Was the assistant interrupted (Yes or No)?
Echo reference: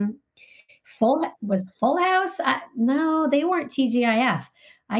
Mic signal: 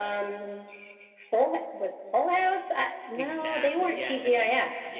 Yes